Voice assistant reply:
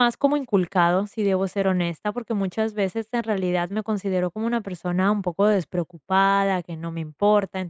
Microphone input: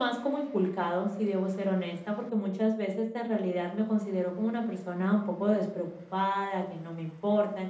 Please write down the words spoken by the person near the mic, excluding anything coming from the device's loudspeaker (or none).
none